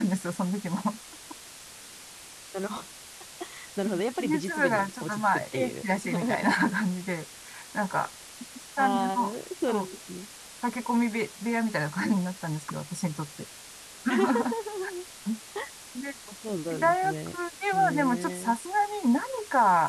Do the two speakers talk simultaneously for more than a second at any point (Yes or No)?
Yes